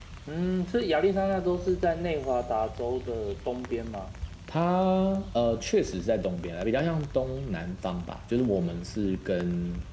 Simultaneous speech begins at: none

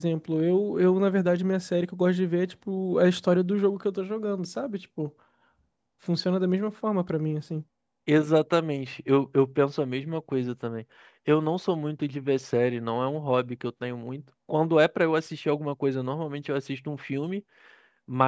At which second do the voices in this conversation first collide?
none

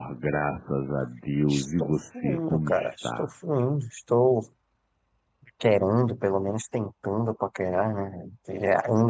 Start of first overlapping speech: 1.5 s

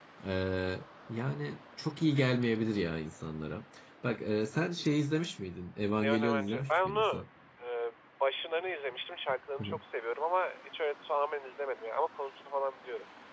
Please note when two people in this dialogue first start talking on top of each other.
6.0 s

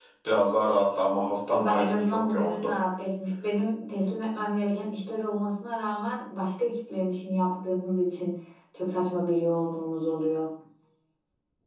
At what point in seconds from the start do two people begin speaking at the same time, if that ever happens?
1.5 s

